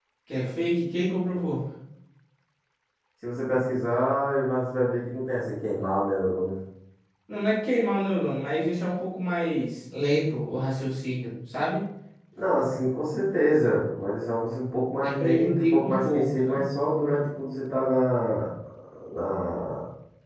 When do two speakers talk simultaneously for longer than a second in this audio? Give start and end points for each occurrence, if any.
15.0-16.6

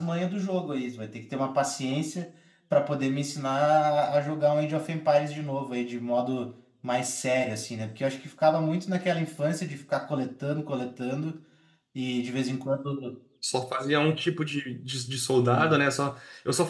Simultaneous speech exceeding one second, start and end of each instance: none

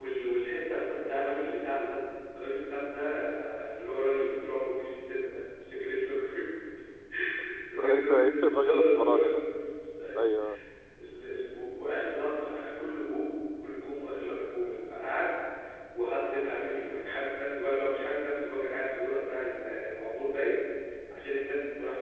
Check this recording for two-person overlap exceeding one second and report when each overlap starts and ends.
7.8-9.4

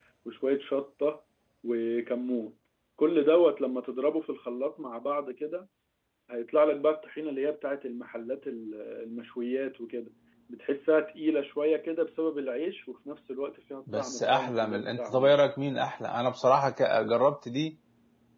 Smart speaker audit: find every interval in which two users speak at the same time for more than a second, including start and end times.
14.0-15.4

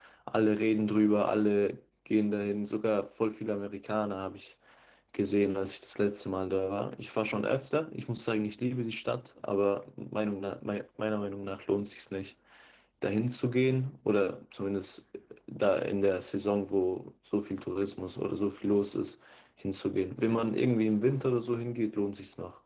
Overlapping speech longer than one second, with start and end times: none

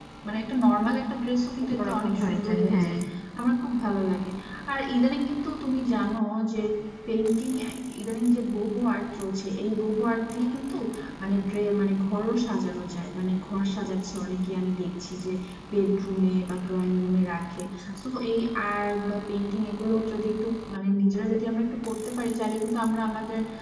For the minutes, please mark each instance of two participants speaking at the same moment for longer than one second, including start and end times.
1.7-2.9

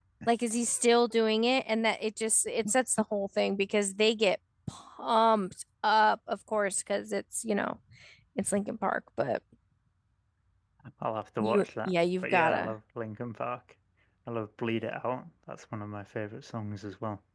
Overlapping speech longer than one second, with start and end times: 11.4-12.7

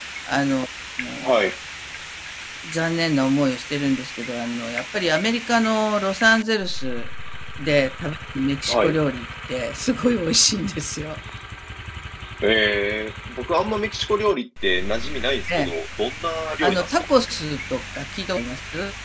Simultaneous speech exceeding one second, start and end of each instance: none

